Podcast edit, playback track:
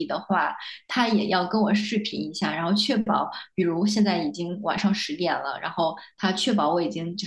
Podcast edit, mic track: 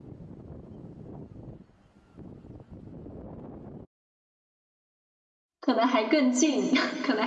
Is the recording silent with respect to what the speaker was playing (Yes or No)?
Yes